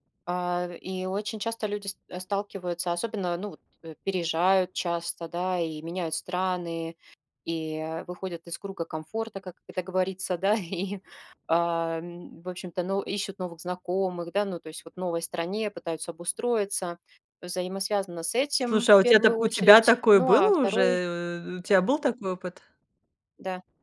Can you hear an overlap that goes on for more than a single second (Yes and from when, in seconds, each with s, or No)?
Yes, from 18.7 s